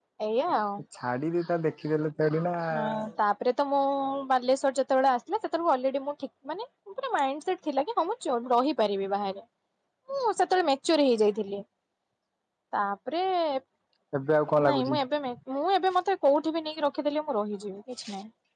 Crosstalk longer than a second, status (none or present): none